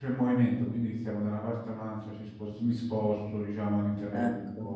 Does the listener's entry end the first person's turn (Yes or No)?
No